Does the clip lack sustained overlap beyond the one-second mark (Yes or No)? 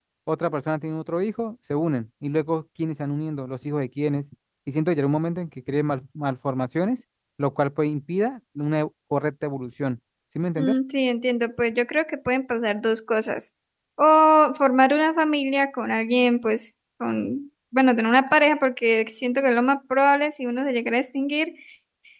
Yes